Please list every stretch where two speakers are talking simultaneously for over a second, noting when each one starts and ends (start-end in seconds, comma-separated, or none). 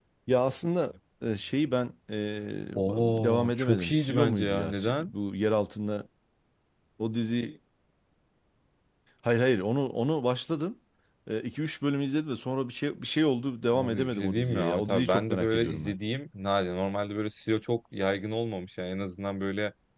2.8-5.1, 13.7-15.9